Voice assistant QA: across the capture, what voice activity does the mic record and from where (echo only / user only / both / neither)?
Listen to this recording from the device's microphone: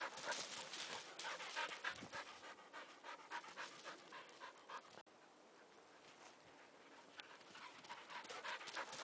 neither